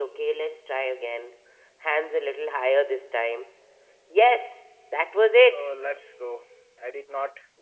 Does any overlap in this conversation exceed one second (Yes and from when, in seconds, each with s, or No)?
No